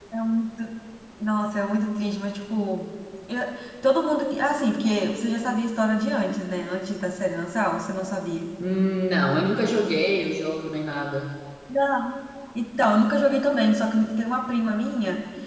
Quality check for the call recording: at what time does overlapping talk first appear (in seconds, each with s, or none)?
none